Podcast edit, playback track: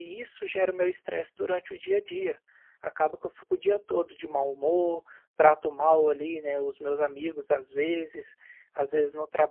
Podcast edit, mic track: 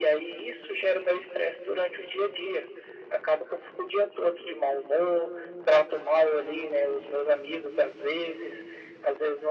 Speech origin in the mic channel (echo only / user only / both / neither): echo only